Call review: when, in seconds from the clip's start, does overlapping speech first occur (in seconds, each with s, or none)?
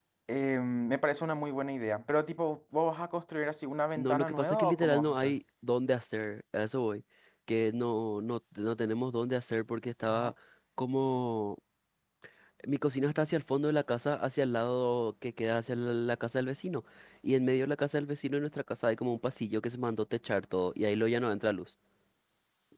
4.0 s